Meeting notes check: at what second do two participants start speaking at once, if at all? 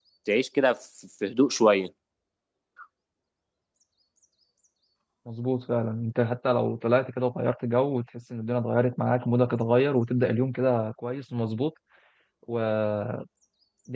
none

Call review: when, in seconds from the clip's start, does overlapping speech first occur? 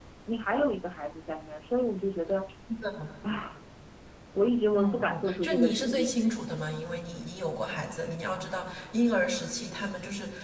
4.7 s

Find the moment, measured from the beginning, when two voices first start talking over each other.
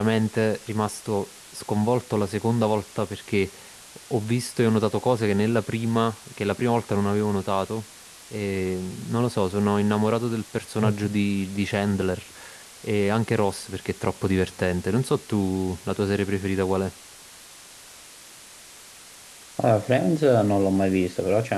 none

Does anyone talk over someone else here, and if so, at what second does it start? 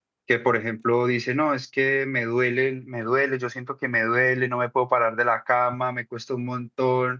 none

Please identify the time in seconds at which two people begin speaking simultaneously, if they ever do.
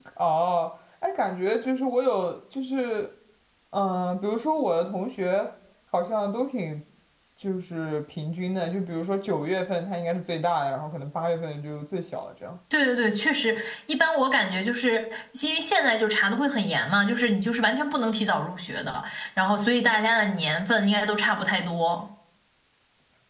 none

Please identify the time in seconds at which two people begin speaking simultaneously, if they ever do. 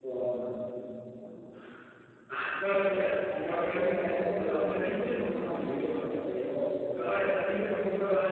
3.2 s

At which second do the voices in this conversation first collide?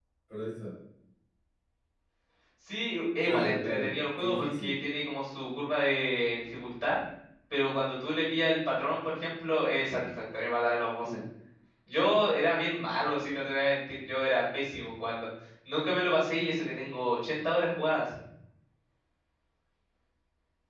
3.2 s

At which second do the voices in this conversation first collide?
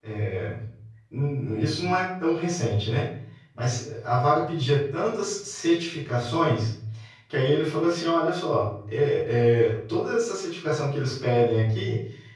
none

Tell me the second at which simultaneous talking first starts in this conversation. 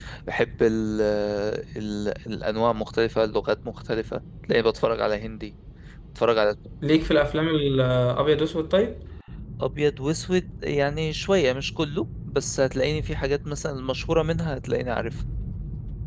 none

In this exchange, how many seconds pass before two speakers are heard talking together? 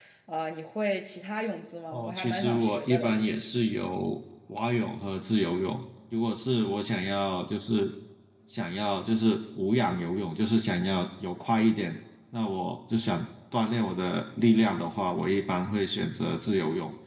1.9 s

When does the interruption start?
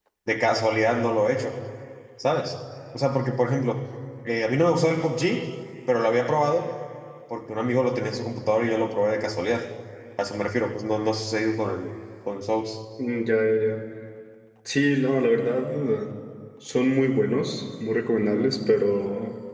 none

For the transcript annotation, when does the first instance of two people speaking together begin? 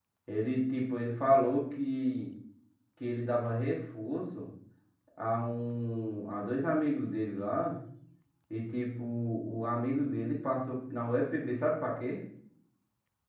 none

